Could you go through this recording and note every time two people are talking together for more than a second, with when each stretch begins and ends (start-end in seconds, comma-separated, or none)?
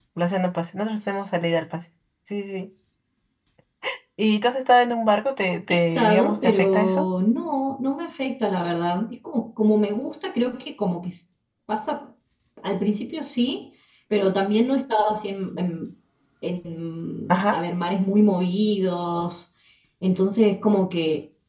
5.7-7.1